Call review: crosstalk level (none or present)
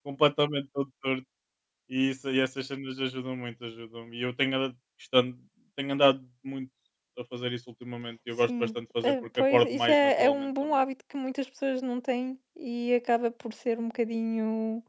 present